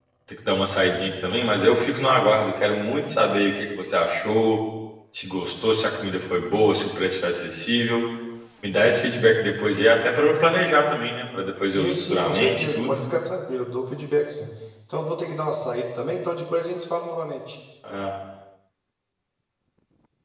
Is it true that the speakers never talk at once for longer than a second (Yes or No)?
No